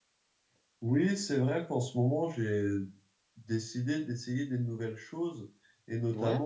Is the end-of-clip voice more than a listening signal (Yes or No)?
No